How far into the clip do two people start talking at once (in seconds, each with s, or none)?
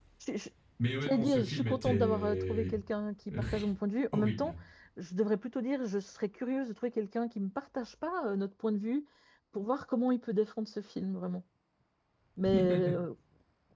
1.0 s